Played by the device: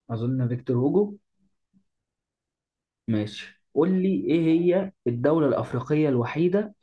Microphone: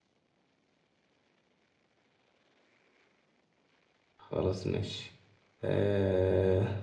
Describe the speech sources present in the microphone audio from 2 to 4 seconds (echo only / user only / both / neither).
neither